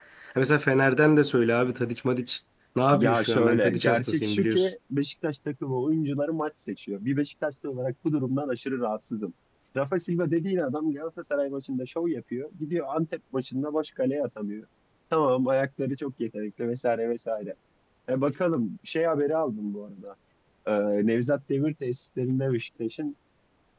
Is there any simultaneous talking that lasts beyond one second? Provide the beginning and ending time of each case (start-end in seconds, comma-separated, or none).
2.9-4.7